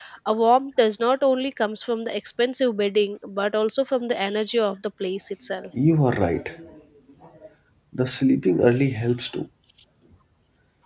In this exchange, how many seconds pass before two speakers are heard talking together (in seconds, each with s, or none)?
none